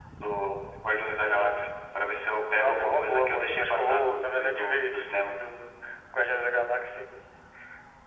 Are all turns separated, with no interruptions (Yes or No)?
No